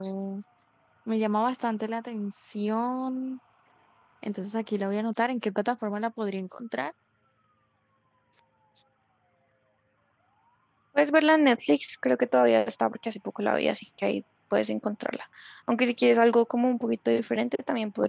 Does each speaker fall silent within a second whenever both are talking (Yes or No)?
Yes